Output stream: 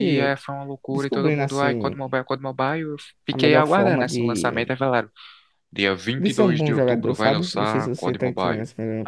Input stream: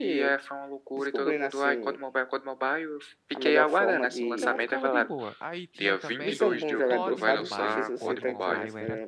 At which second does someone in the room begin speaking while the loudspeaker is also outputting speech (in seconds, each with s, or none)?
4.2 s